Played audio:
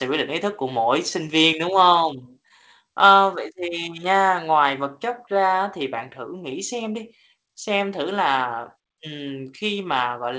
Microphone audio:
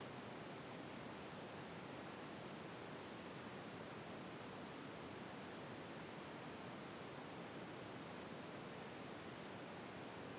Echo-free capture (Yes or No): Yes